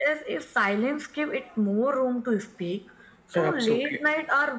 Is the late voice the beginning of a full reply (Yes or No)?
No